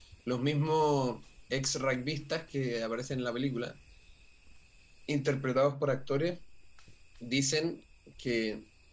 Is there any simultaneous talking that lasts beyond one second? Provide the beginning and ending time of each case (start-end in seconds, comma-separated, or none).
none